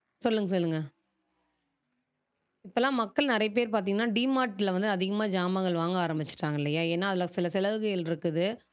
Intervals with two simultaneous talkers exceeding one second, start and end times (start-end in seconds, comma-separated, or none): none